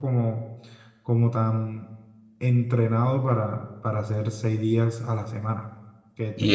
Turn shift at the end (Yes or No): No